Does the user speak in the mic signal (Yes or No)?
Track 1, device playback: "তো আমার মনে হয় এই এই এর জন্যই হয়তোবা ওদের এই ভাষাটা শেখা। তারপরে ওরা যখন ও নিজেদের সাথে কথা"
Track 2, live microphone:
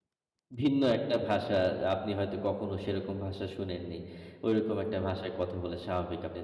Yes